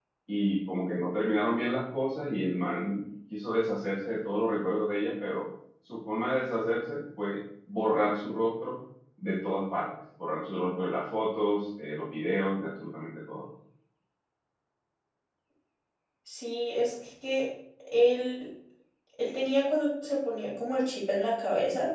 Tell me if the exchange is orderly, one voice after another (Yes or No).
Yes